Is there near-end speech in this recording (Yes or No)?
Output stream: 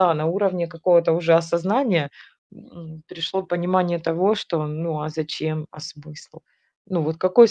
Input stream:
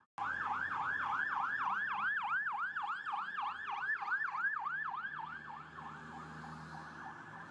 No